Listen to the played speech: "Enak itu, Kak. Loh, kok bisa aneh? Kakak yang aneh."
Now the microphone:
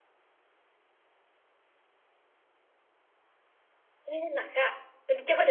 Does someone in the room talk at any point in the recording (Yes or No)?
Yes